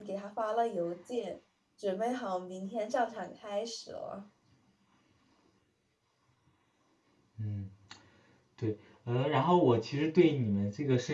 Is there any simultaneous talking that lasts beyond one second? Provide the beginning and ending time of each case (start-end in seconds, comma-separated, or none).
none